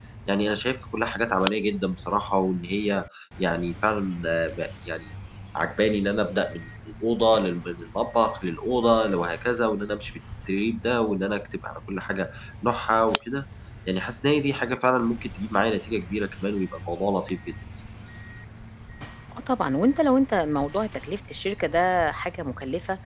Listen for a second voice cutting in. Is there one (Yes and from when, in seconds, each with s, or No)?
No